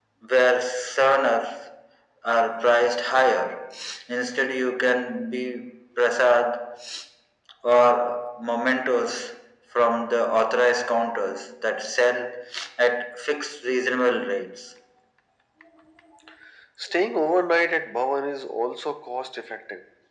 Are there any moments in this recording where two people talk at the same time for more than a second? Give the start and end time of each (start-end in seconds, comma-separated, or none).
none